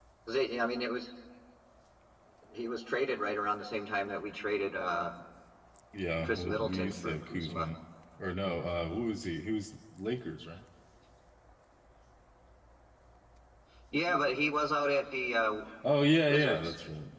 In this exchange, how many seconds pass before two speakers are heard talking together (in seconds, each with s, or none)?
6.2 s